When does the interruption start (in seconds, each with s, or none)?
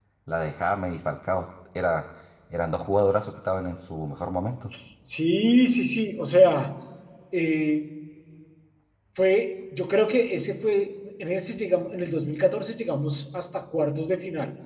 none